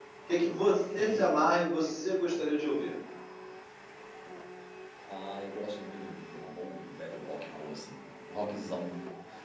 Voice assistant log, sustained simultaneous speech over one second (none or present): none